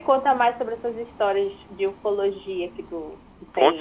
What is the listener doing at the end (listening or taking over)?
taking over